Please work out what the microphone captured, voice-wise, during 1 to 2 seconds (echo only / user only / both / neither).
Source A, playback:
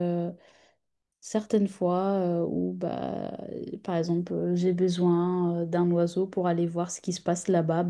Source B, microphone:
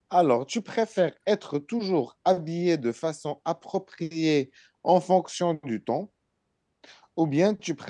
user only